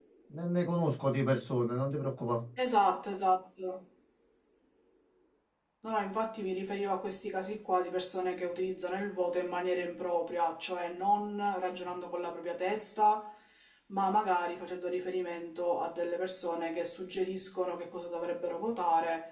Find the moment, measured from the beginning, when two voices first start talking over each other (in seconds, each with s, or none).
none